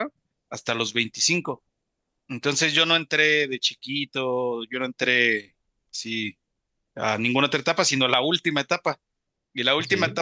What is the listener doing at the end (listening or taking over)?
listening